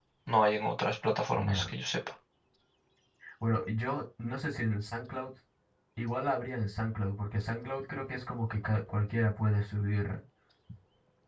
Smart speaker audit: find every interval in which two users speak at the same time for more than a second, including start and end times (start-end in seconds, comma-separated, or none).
none